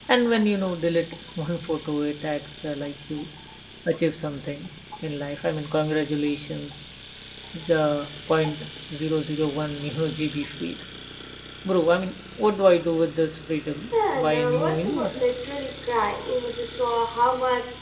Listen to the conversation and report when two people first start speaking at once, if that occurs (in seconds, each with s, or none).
13.9 s